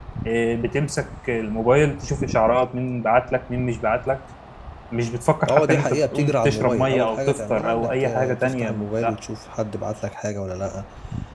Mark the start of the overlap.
5.5 s

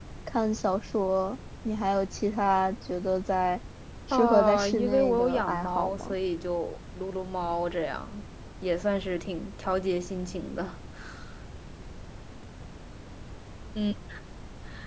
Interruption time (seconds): 4.1 s

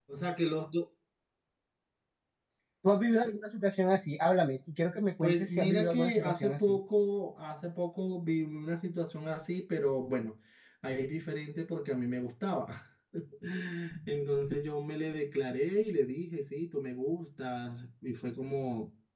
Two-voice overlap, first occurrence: 5.2 s

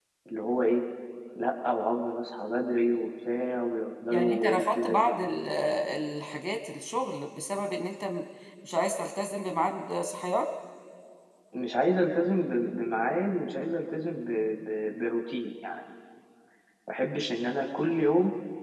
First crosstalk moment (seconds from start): 4.1 s

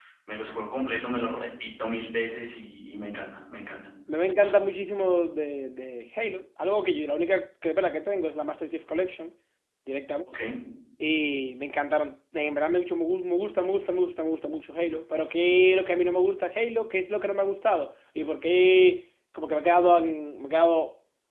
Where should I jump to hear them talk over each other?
none

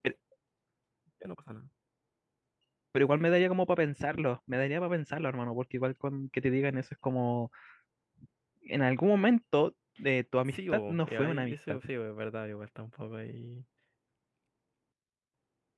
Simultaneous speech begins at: 10.5 s

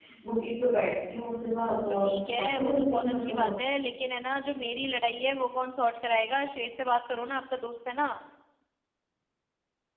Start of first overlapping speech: 1.7 s

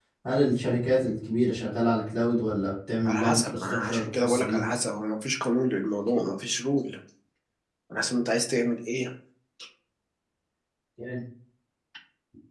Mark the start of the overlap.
3.0 s

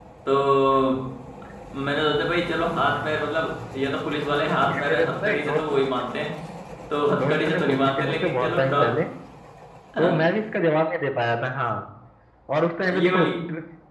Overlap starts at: 4.6 s

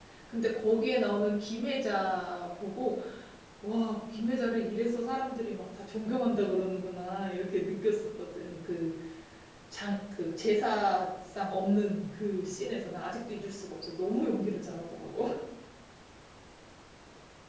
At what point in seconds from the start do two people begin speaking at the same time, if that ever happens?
none

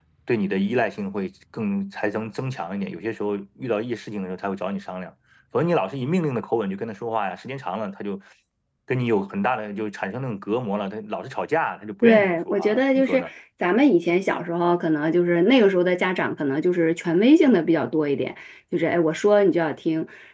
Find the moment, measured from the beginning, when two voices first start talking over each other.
12.0 s

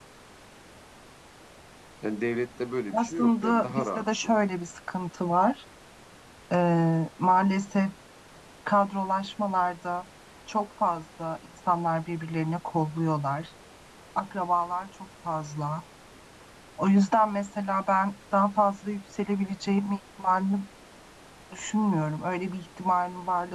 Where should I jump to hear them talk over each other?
2.9 s

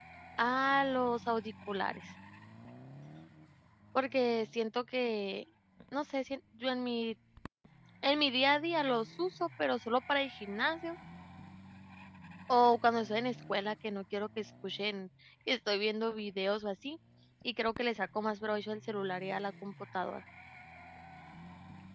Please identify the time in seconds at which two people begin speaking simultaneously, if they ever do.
none

